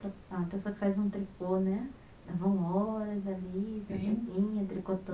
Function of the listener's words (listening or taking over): listening